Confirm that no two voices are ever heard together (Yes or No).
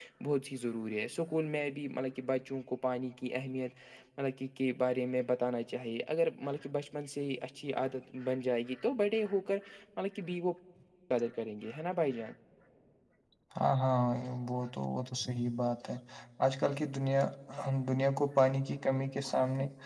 Yes